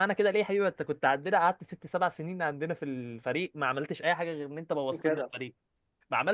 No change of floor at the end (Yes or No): Yes